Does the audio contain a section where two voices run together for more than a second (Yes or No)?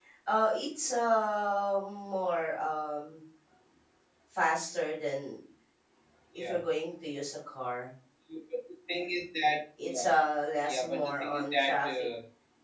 Yes